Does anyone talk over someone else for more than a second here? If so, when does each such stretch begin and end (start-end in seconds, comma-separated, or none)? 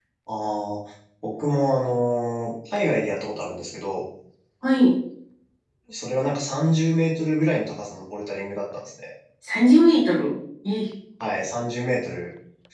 none